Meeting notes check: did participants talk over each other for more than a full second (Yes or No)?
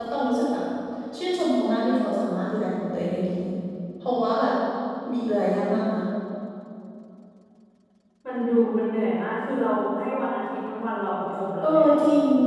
No